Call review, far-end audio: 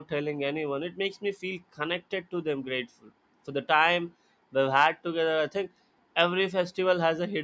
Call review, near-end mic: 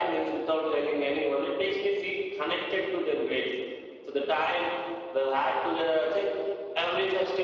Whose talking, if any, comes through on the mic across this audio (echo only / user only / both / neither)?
echo only